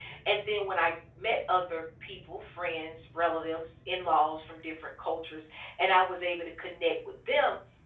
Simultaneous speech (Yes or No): No